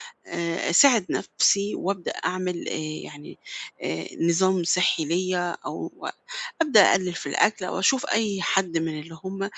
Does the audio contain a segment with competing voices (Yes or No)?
No